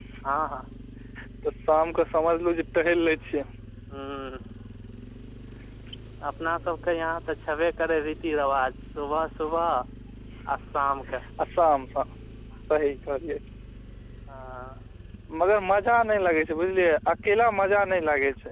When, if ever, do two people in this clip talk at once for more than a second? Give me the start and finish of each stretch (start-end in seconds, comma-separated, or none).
none